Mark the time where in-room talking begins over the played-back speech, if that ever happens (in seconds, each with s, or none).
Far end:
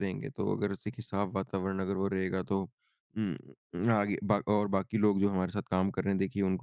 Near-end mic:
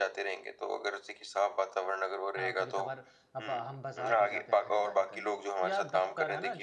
2.4 s